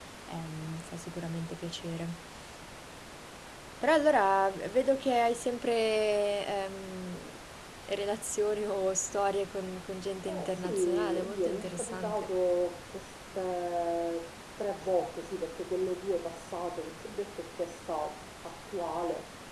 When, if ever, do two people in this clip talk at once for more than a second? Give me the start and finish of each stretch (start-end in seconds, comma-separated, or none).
10.3-12.3